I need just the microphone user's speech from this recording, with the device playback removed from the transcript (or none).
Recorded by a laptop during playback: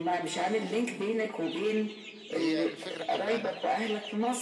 هي الفكرة كلها